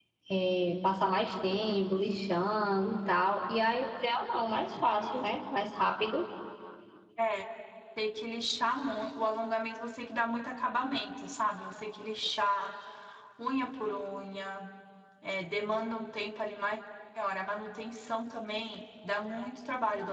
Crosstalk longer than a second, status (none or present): none